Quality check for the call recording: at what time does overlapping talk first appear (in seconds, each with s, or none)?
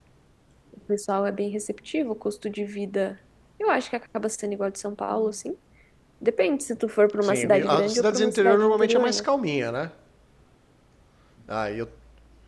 7.2 s